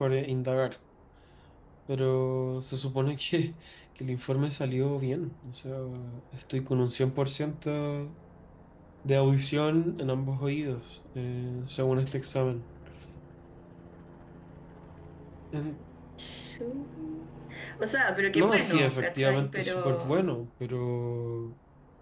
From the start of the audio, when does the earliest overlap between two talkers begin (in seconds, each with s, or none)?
18.3 s